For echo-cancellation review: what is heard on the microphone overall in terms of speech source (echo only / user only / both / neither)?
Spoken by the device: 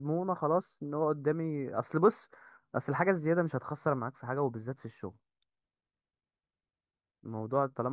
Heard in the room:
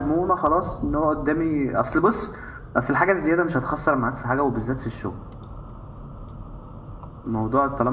echo only